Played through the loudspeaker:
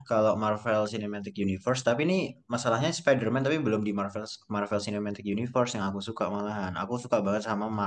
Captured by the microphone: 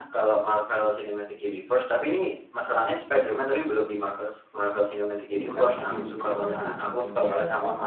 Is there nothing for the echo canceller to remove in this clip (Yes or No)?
No